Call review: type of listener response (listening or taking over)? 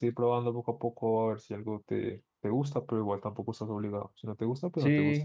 taking over